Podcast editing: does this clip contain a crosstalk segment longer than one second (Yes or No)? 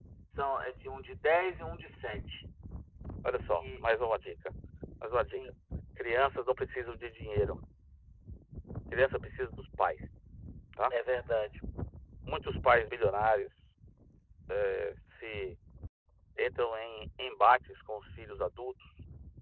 No